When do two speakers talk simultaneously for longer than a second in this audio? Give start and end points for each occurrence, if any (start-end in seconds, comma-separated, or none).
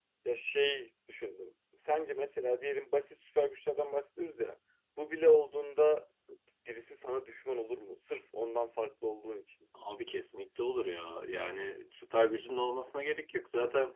none